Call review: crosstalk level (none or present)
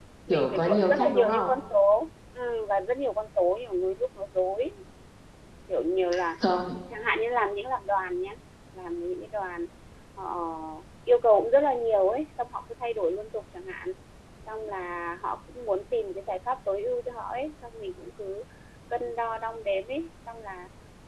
present